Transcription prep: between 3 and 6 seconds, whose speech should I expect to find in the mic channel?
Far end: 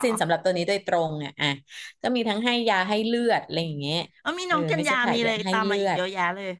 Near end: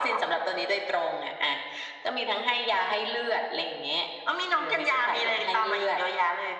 echo only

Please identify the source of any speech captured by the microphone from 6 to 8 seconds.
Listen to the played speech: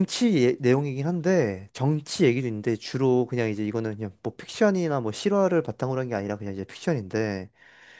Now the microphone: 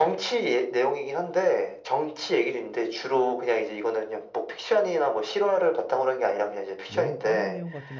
both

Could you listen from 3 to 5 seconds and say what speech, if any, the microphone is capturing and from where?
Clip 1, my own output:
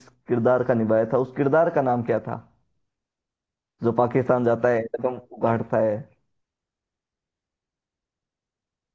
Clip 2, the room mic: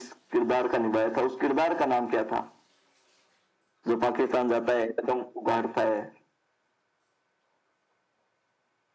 echo only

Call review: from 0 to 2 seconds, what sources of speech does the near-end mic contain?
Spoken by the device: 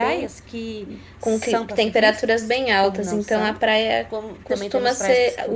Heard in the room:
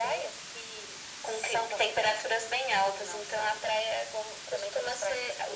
echo only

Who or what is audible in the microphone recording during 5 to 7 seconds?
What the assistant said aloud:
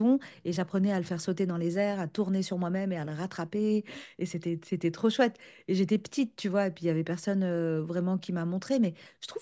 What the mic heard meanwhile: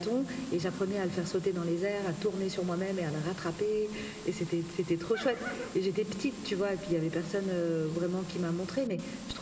echo only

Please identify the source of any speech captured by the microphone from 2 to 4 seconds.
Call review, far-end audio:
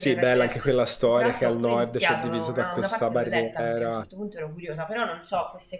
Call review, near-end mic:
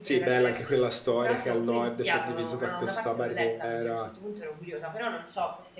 echo only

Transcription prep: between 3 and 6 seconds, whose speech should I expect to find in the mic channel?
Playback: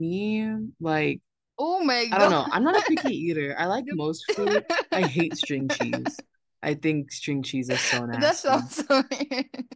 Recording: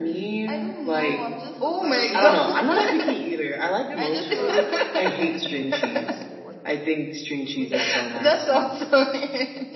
both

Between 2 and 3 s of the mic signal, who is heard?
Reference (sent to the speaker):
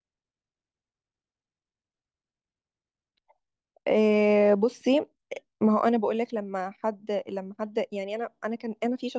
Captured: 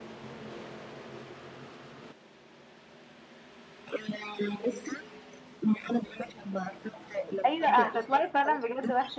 neither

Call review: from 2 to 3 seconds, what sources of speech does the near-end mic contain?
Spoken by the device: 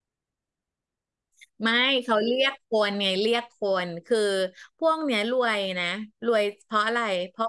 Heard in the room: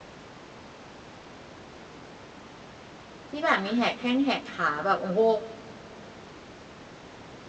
neither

